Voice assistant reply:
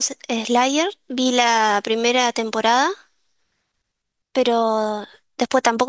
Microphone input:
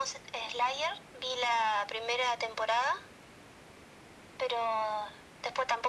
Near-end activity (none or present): none